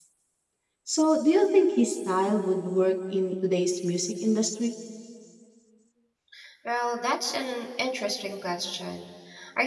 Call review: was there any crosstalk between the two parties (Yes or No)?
No